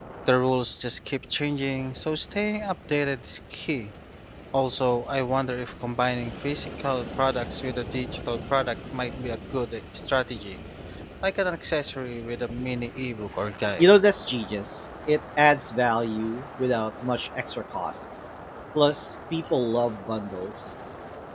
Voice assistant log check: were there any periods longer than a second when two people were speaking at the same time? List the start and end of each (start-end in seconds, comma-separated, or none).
none